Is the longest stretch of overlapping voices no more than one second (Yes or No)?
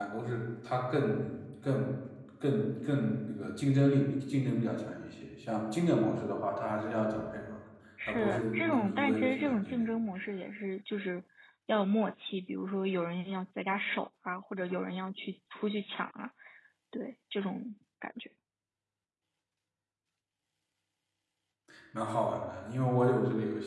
No